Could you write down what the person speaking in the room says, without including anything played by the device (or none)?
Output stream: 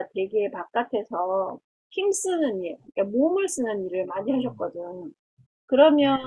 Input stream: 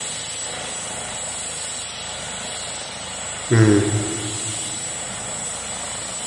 음,